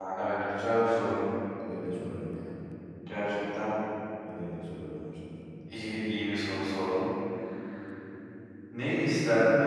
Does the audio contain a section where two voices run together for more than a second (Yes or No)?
No